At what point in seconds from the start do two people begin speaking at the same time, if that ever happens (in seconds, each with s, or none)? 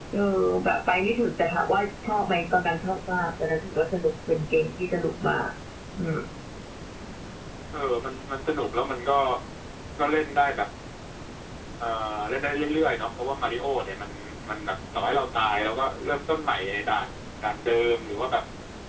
none